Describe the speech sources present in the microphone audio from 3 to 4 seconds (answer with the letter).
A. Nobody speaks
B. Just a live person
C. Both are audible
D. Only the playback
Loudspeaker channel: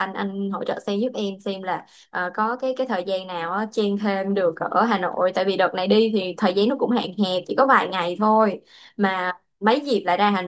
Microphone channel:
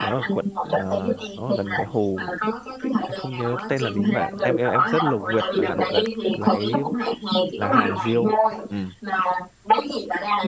C